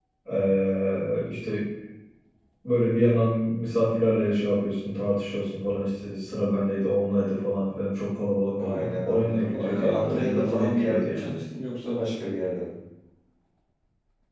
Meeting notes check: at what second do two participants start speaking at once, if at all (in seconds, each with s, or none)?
8.6 s